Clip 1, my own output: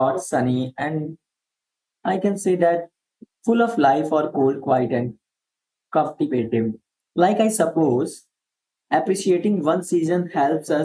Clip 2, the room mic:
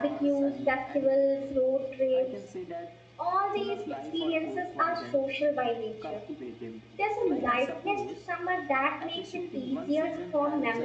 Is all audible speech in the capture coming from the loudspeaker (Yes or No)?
No